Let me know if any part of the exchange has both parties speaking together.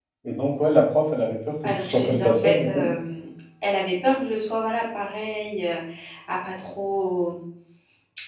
Yes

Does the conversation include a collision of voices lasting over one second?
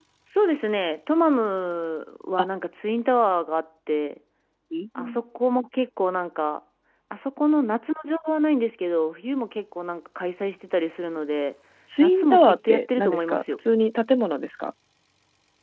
Yes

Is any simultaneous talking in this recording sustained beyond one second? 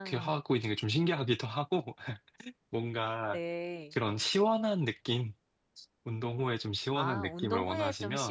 Yes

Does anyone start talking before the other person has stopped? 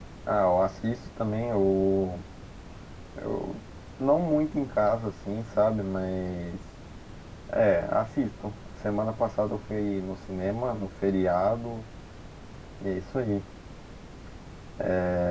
No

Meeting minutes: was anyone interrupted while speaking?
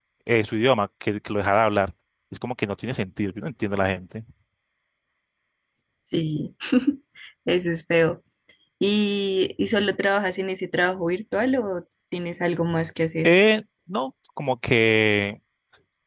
No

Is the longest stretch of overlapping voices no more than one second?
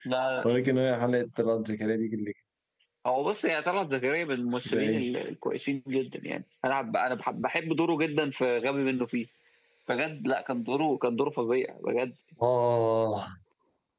Yes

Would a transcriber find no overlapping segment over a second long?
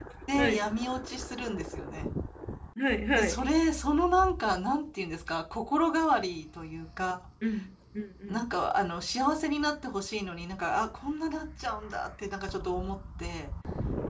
Yes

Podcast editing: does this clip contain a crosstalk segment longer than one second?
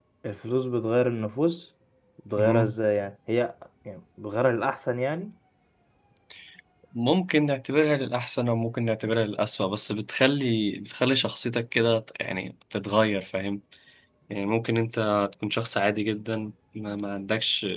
No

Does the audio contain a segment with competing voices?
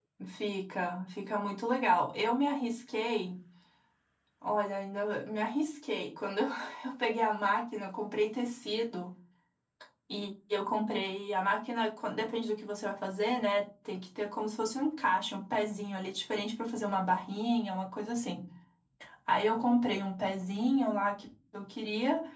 No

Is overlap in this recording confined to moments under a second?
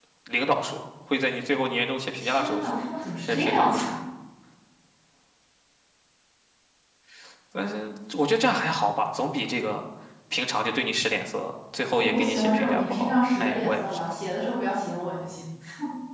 No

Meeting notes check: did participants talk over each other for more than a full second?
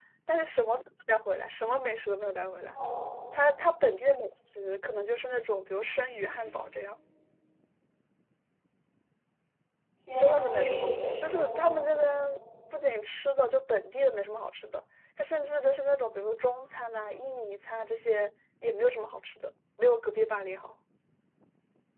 Yes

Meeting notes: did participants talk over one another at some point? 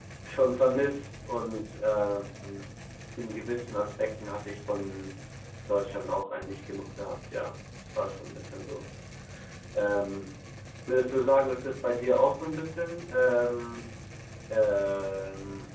No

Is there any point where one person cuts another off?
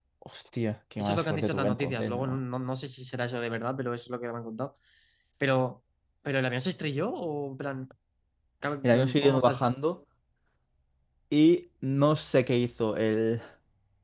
Yes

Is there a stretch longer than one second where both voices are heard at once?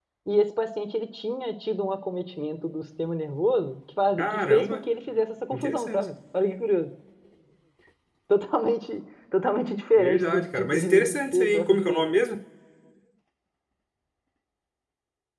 Yes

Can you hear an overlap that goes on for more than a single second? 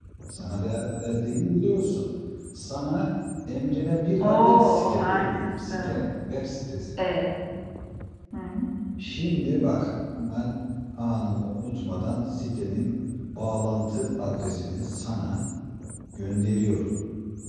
Yes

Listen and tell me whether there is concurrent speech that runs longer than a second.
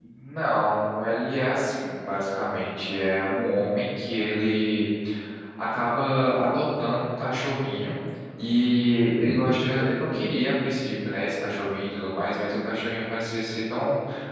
No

